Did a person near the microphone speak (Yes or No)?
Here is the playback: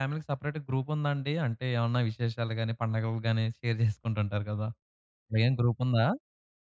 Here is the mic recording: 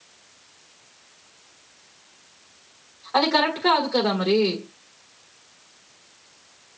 Yes